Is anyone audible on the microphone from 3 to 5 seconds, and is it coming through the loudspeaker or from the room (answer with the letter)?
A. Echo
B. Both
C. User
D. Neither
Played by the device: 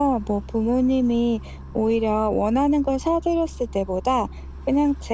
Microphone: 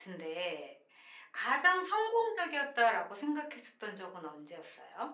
C